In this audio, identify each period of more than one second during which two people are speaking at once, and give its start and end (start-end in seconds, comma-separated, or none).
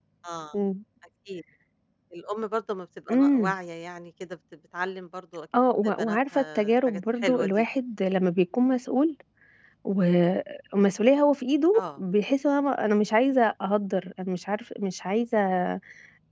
6.0-7.6